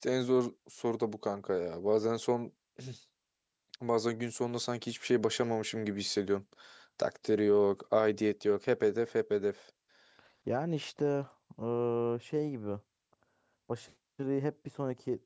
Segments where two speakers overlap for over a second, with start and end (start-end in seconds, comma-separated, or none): none